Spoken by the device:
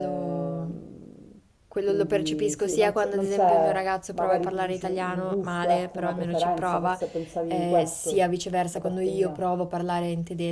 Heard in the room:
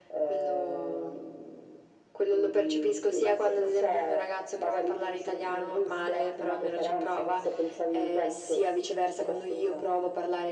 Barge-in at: none

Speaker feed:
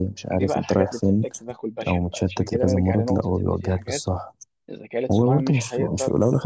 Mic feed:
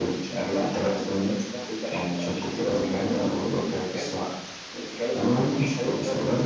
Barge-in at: none

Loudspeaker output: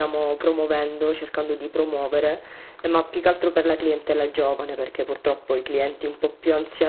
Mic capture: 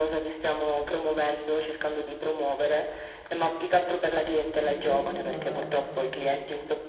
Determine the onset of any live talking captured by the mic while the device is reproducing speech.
4.6 s

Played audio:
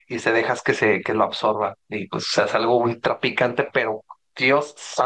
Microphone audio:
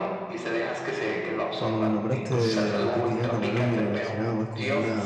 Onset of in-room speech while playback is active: 1.5 s

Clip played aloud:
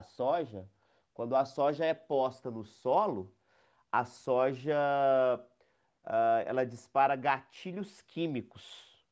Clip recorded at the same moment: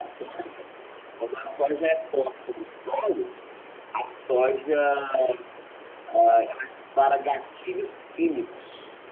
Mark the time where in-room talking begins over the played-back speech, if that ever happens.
none

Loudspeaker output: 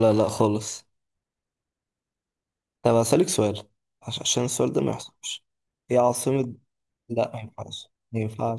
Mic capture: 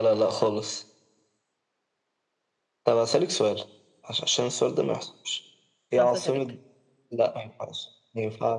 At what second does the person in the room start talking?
6.0 s

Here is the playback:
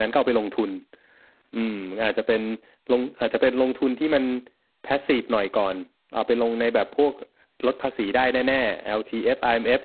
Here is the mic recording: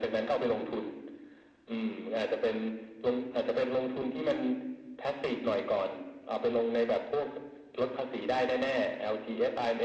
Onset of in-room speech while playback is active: none

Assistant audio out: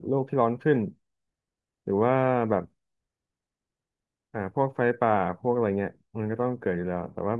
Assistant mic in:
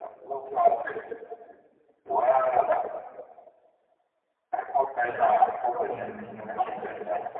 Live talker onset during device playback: 5.1 s

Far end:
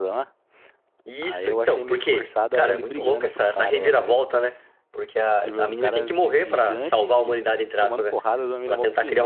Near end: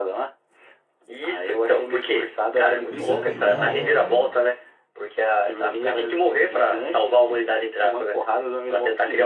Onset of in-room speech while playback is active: 2.9 s

